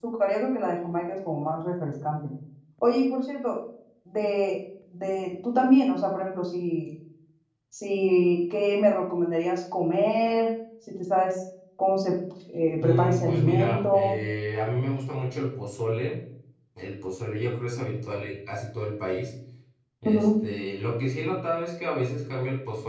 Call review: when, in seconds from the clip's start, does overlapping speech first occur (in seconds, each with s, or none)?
12.8 s